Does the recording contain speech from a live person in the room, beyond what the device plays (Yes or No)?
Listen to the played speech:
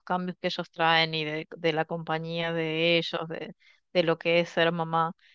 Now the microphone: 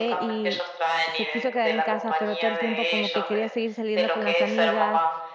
Yes